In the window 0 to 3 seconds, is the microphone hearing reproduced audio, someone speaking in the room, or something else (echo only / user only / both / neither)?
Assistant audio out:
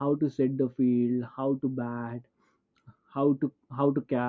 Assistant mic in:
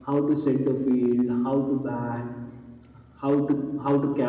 echo only